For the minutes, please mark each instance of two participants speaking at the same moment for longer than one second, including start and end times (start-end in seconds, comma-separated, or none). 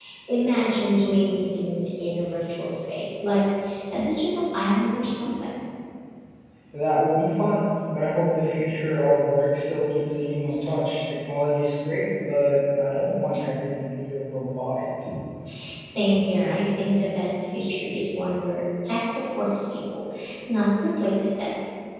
none